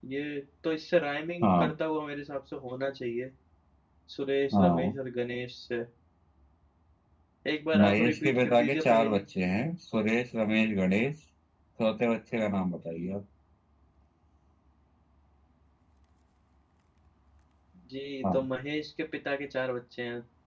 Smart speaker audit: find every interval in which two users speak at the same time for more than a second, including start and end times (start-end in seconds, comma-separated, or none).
7.8-9.2